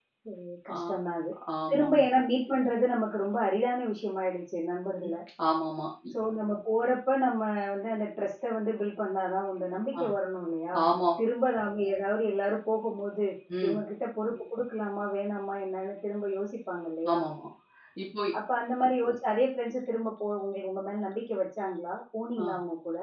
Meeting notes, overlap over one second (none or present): none